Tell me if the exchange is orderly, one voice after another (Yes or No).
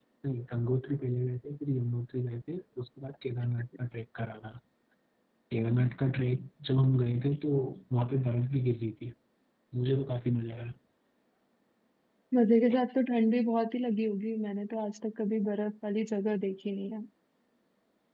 Yes